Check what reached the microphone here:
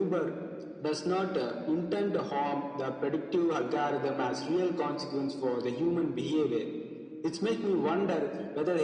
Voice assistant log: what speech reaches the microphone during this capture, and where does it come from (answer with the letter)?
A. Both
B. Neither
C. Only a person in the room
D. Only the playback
D